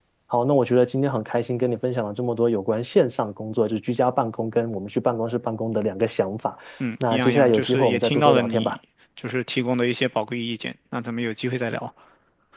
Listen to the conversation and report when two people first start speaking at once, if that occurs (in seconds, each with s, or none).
7.0 s